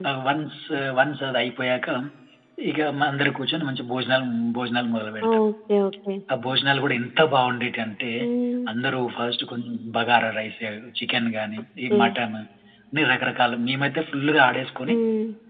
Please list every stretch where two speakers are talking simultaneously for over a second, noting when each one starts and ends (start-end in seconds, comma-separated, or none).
none